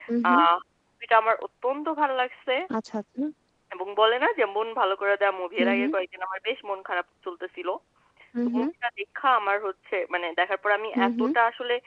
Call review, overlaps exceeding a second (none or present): none